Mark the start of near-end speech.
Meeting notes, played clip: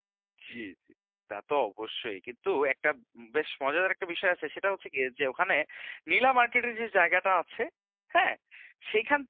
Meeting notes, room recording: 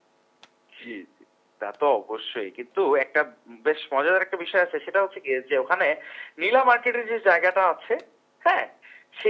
none

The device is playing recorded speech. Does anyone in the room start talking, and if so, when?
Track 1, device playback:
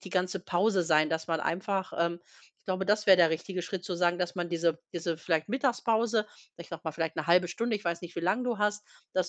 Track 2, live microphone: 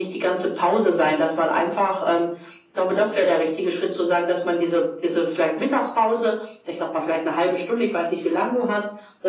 none

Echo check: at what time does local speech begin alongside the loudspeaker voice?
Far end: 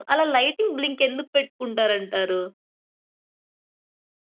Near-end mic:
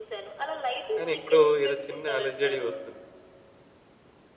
0.9 s

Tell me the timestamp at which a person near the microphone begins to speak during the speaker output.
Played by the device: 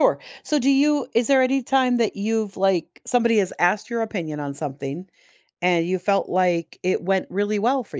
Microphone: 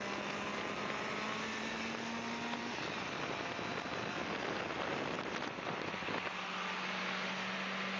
none

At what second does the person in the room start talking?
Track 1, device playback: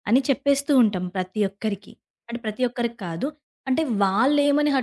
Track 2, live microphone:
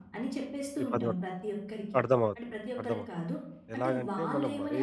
0.8 s

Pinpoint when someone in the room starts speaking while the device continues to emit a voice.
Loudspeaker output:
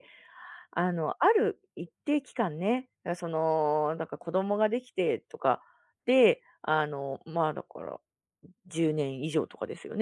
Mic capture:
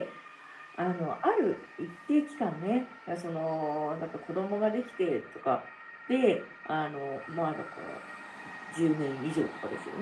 none

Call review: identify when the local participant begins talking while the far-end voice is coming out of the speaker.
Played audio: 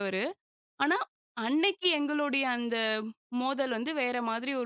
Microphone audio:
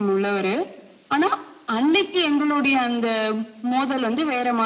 none

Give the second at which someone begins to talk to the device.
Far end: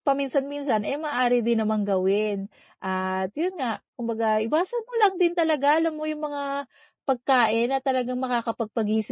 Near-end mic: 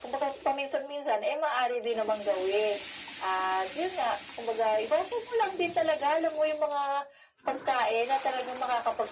none

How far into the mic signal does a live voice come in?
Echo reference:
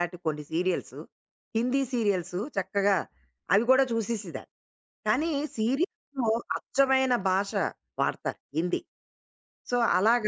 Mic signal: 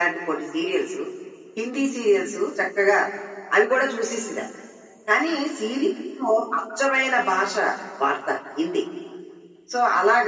none

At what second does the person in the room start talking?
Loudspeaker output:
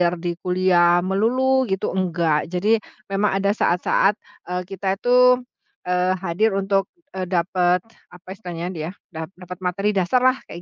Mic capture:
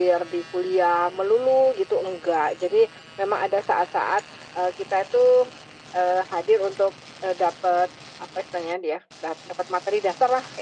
none

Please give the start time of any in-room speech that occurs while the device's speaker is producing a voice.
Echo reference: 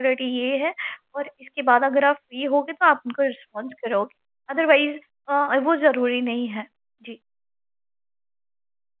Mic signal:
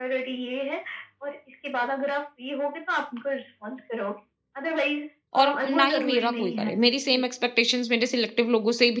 5.4 s

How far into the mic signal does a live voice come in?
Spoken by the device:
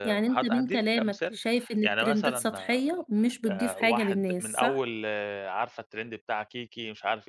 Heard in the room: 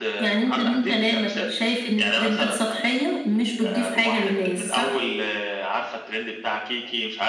none

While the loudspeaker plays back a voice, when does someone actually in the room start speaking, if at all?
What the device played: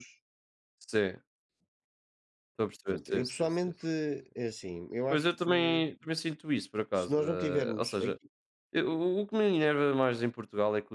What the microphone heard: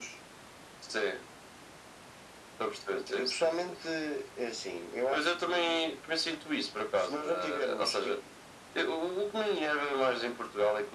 none

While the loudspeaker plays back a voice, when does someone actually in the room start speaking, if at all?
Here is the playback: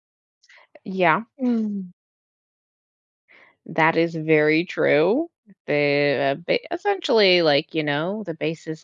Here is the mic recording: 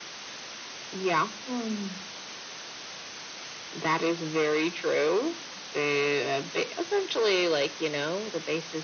none

